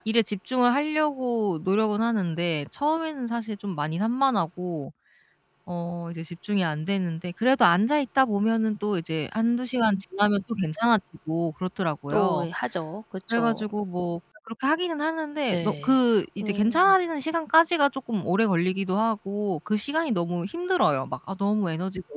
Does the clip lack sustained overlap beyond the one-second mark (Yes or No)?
Yes